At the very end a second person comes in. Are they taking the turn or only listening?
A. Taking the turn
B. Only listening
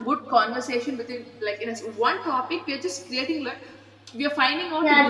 A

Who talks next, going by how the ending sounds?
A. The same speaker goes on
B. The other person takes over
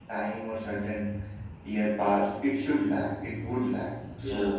B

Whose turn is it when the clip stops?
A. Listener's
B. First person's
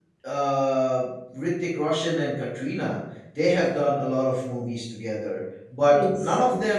B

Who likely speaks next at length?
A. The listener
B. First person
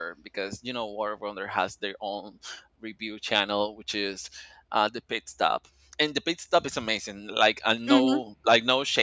B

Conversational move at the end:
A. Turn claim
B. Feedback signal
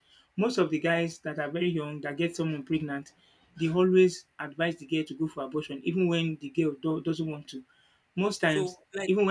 A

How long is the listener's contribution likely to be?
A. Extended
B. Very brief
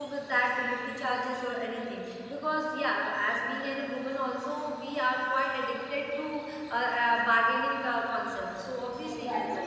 A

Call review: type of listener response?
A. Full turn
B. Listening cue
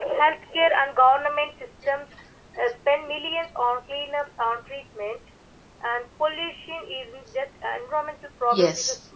B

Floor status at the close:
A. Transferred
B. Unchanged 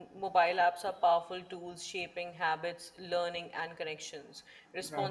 B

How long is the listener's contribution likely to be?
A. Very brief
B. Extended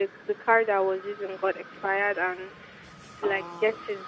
A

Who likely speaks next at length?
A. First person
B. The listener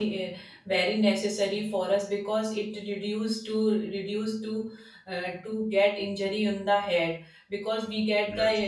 A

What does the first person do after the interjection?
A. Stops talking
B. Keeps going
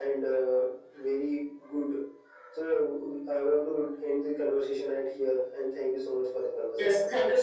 A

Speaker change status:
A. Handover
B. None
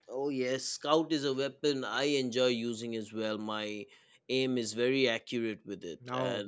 B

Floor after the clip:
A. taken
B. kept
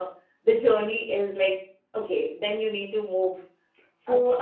A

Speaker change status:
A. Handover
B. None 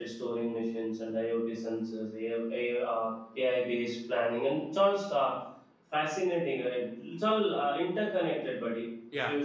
B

